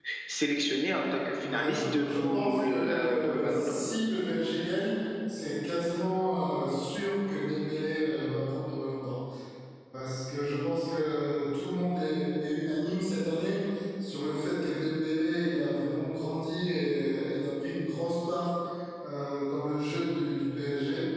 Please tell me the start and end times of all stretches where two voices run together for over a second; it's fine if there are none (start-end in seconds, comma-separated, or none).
1.4-3.7